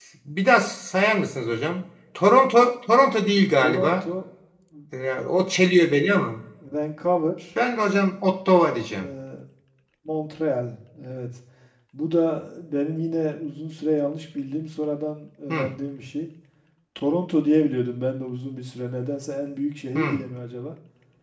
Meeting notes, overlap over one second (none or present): none